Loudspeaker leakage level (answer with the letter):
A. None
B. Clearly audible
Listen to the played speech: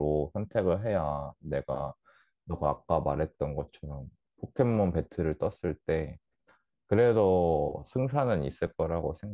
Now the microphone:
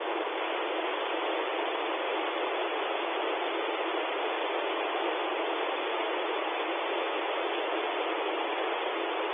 A